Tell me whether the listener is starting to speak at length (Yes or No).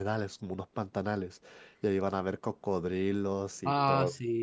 Yes